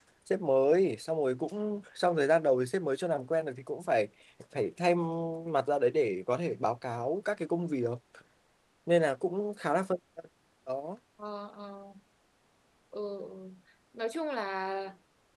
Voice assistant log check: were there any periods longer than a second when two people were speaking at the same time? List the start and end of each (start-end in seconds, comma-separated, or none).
none